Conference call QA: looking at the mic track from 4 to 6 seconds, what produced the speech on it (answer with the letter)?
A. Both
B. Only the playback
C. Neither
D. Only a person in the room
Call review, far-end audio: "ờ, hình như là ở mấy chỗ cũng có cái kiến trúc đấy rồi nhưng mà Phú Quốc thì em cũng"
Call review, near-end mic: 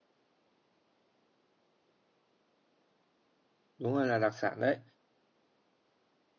D